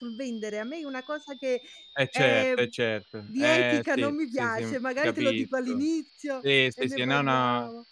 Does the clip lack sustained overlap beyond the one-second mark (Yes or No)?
No